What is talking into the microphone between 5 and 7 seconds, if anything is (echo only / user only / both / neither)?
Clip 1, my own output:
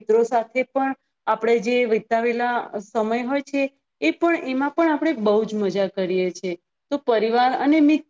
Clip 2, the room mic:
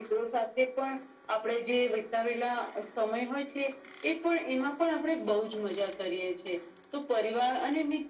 echo only